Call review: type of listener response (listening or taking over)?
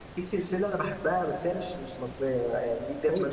listening